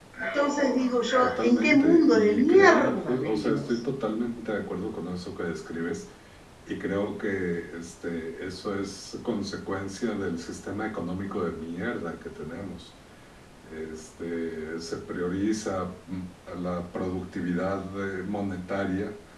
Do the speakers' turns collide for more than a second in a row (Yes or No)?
Yes